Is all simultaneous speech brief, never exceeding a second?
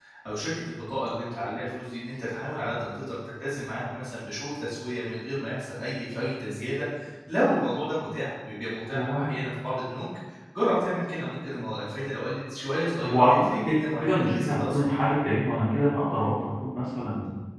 No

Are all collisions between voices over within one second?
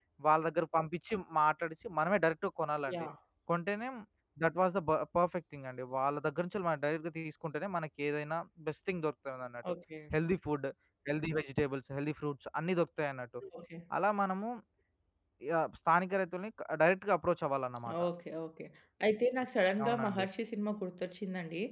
Yes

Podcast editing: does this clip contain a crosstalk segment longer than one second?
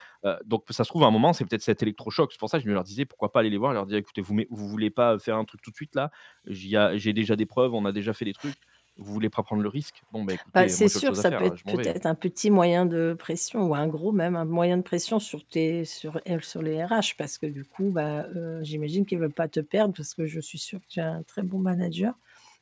Yes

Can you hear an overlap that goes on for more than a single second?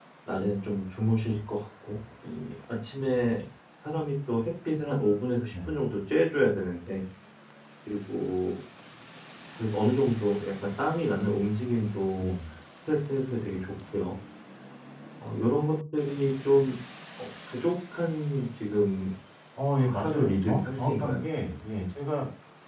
Yes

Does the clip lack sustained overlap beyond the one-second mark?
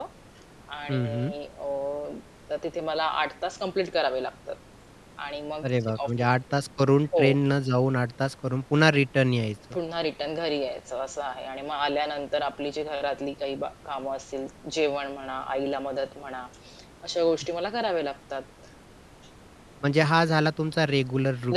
Yes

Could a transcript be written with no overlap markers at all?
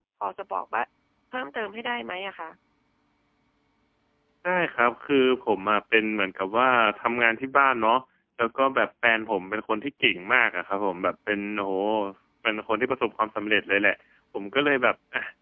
Yes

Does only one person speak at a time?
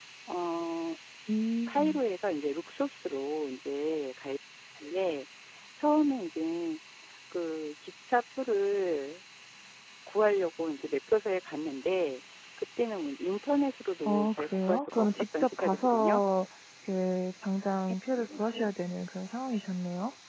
No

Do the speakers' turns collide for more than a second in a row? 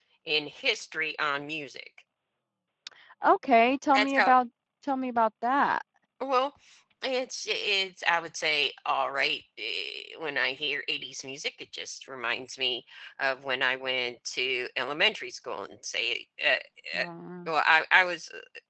No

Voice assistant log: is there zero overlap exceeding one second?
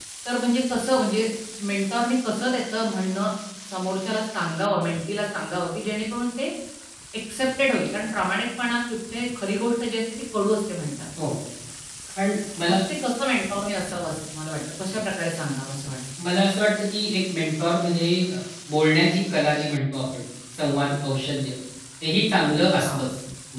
Yes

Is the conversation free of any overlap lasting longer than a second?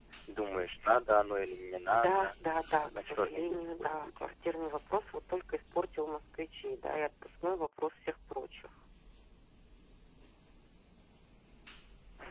No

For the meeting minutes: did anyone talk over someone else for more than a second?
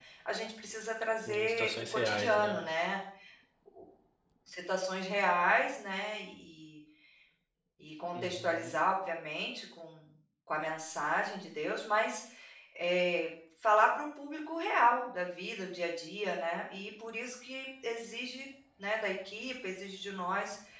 Yes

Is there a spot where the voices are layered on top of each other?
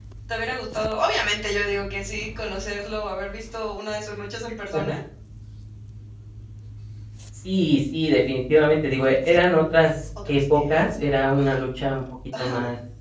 Yes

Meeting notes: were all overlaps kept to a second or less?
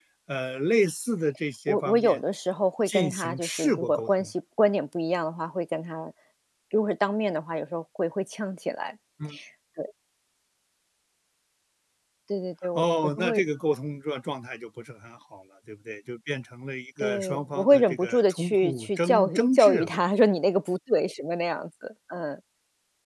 No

